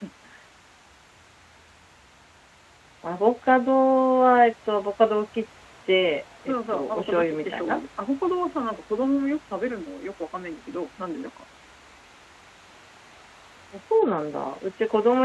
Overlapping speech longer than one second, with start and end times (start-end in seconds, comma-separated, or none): 6.5-7.8